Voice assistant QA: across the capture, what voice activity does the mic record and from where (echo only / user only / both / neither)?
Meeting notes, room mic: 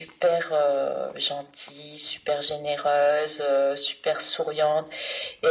echo only